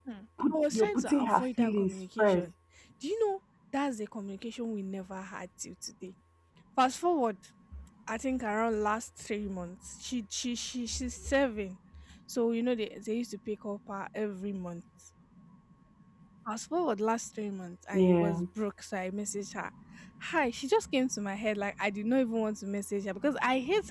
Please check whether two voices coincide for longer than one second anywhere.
Yes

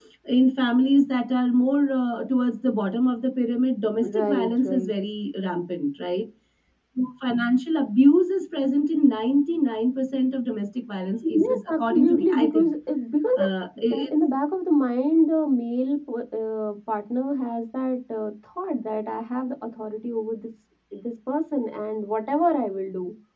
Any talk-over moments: Yes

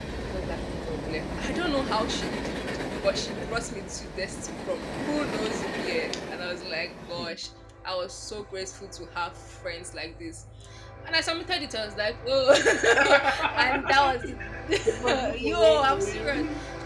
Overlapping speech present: Yes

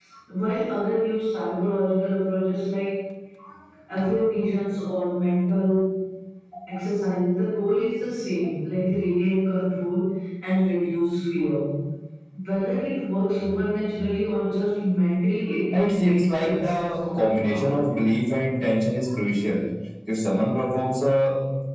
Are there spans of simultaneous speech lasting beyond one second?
Yes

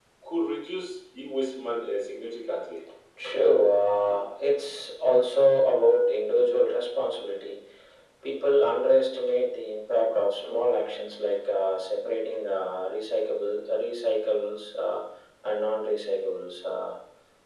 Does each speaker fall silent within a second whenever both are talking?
Yes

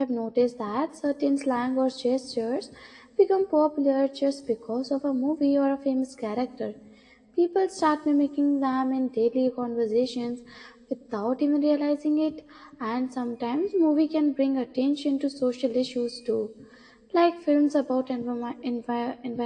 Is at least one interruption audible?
No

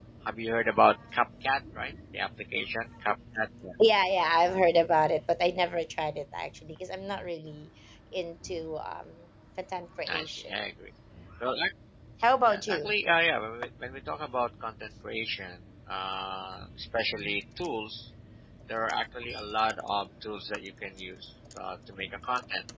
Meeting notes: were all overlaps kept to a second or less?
Yes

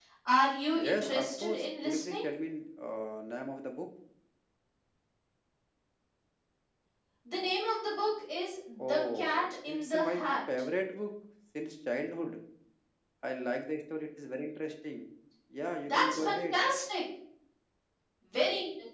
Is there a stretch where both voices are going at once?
Yes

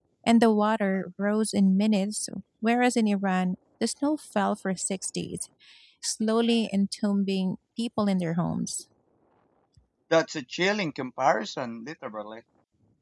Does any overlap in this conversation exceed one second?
No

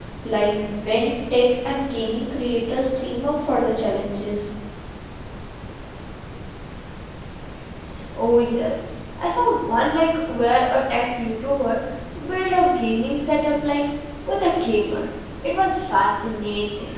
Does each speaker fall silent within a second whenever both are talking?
Yes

